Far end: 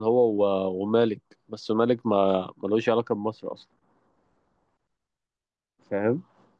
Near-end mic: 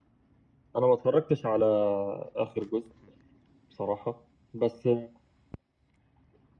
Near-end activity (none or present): present